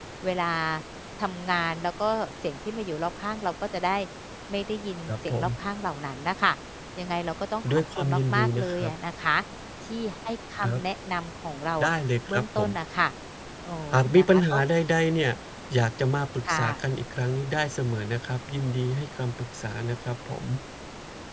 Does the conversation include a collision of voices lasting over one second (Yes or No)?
Yes